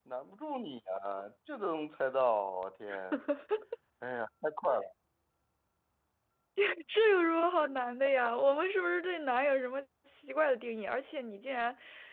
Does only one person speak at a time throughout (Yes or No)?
Yes